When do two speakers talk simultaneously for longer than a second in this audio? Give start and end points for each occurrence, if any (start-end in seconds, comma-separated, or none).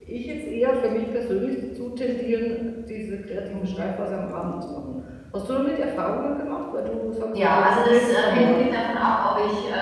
7.4-8.7